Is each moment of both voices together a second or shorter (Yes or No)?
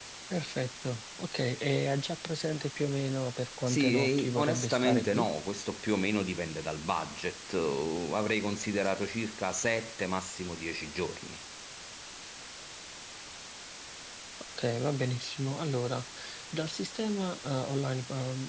No